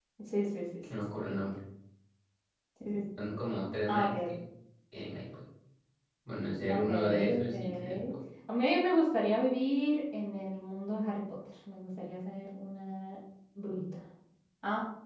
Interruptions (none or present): present